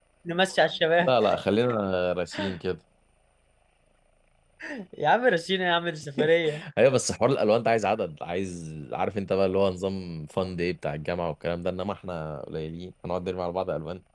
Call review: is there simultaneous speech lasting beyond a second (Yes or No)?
No